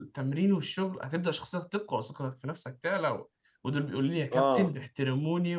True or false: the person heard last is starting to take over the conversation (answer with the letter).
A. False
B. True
A